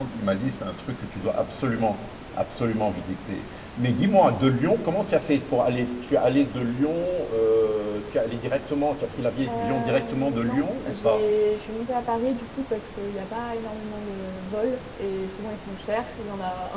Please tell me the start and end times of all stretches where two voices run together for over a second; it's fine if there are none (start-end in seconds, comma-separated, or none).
9.5-11.2